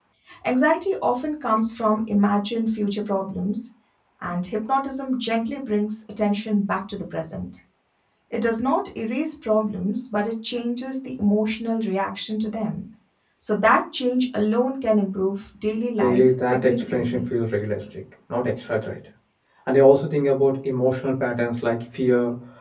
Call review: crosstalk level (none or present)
present